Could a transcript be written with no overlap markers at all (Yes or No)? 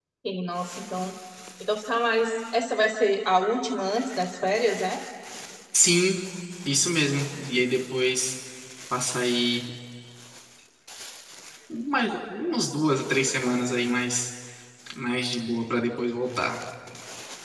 Yes